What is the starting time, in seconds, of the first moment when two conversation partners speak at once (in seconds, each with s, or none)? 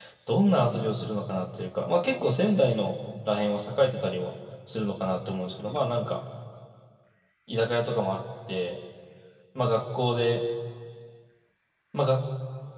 none